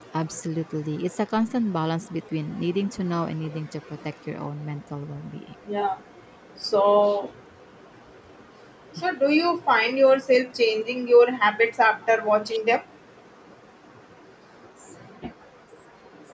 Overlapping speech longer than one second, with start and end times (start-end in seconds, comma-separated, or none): none